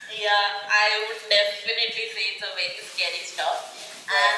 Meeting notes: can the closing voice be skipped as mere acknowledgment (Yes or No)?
Yes